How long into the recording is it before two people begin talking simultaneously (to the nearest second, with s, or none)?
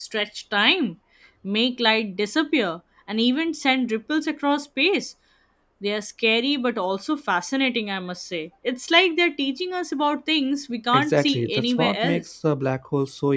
11 s